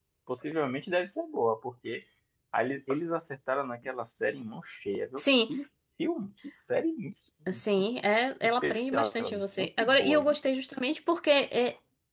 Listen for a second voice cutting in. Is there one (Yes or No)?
Yes